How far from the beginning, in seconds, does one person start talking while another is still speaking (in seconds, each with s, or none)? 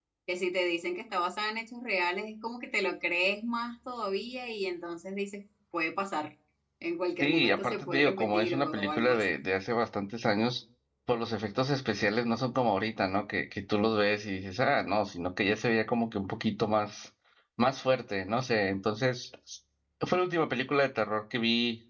7.2 s